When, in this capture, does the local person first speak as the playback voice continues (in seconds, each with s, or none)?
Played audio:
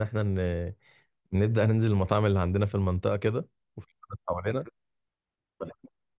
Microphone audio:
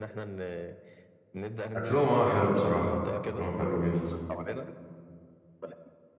1.8 s